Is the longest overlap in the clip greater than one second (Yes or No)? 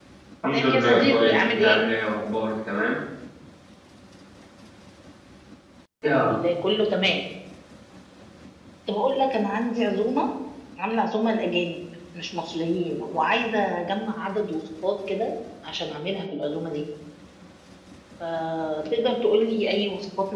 Yes